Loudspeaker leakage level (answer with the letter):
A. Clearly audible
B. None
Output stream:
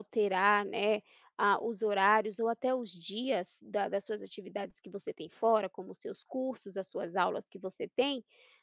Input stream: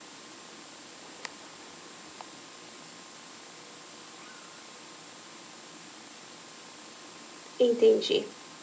B